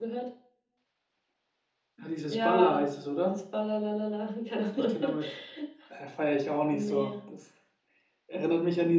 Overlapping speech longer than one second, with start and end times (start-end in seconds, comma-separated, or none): none